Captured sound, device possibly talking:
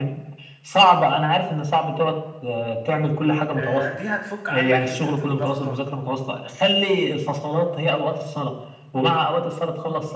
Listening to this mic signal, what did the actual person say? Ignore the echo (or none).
آه دي هتفك عنك حته الضغطه